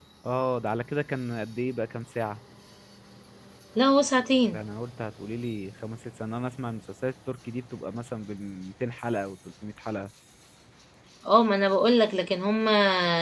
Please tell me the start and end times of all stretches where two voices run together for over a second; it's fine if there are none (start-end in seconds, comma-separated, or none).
none